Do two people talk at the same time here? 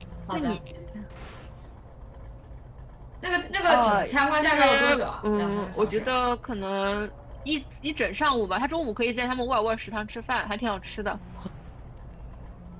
Yes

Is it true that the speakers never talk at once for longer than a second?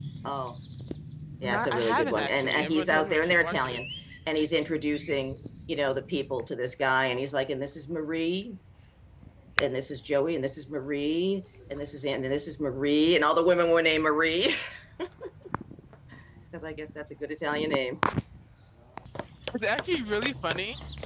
No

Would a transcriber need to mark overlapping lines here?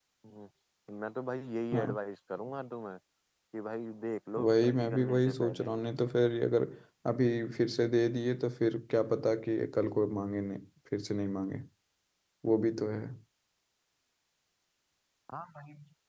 Yes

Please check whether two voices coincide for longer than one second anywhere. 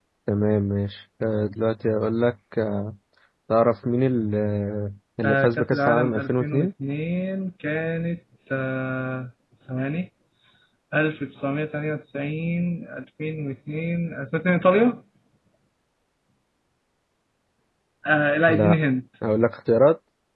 Yes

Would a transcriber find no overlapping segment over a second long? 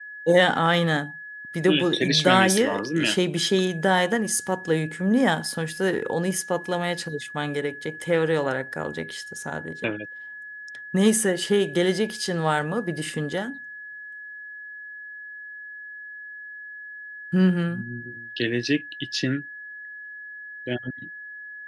No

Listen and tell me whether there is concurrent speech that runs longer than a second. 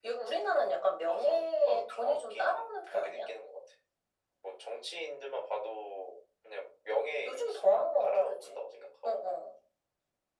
Yes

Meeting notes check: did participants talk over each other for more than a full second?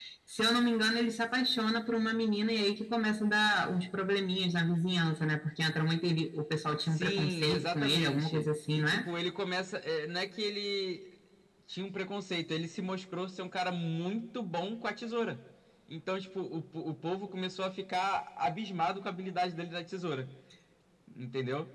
Yes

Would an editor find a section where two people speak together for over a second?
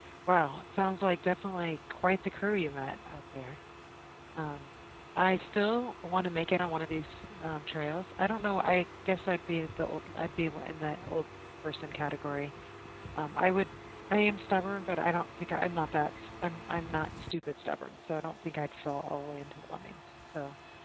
No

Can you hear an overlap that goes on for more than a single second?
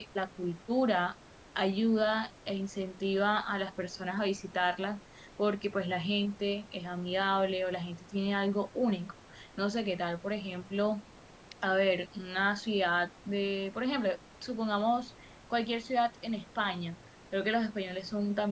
No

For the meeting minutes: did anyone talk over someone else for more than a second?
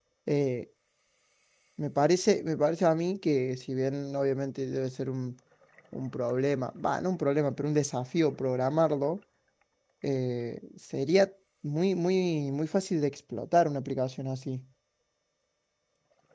No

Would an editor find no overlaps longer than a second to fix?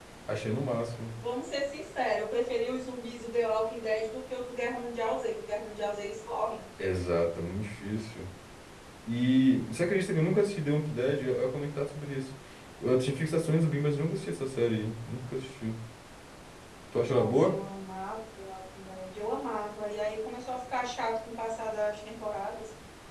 Yes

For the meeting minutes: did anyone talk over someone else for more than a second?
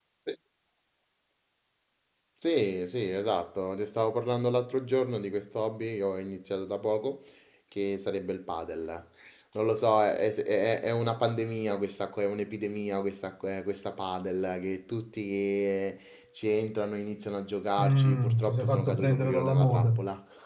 Yes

